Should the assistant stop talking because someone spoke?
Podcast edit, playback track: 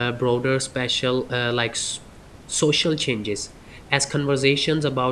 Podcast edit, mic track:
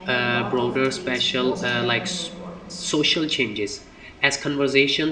Yes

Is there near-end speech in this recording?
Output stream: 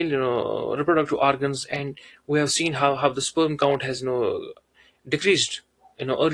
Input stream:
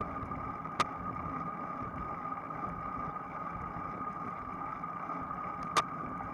No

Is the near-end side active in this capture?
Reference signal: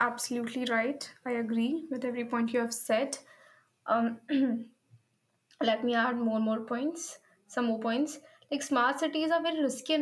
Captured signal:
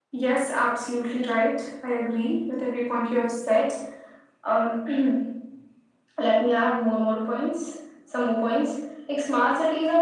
No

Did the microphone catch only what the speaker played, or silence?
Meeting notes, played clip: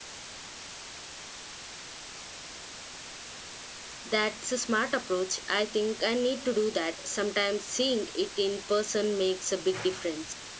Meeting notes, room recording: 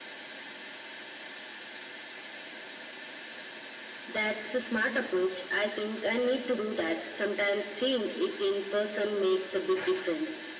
Yes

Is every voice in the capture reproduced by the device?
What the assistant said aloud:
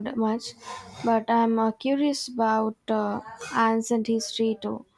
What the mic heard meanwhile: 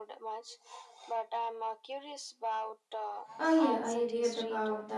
No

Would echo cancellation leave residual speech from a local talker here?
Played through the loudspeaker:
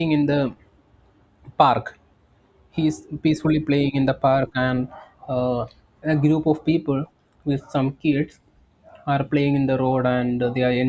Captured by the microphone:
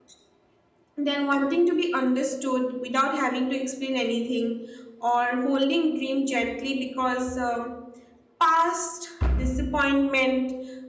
Yes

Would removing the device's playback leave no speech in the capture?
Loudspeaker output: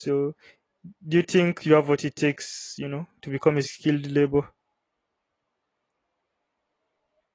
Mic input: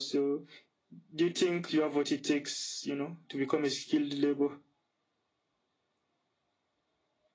Yes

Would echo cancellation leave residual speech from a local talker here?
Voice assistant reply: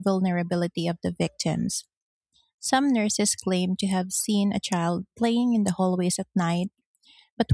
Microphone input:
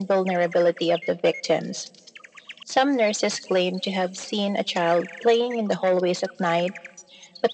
No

